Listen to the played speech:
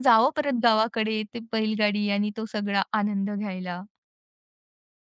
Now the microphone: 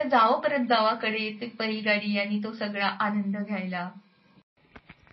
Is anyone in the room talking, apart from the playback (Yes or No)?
No